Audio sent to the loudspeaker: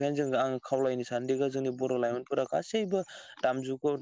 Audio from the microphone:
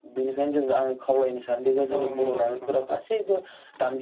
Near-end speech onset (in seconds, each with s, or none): 1.9 s